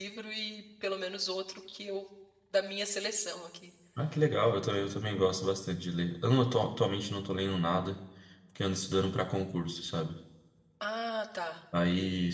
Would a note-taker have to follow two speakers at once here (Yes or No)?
No